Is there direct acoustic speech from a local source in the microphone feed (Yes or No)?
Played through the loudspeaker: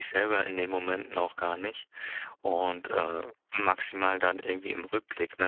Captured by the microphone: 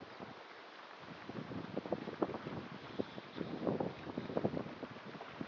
No